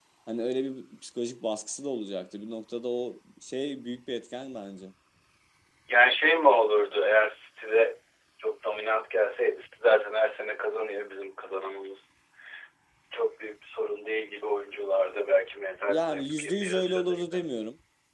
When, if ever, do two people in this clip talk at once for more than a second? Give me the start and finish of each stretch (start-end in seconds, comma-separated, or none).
15.9-17.4